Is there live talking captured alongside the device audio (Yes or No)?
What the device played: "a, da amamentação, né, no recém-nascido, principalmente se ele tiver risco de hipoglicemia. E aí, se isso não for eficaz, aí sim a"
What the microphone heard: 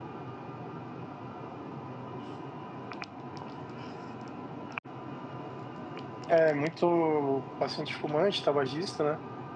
Yes